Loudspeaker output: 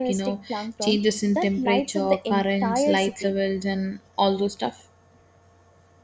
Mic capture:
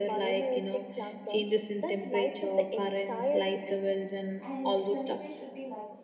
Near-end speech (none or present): present